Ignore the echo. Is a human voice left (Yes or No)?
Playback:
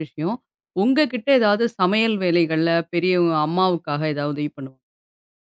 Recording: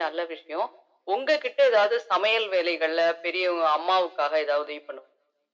No